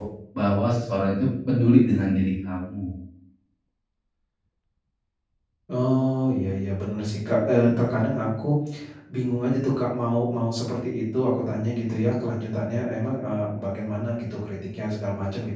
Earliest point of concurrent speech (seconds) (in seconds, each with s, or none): none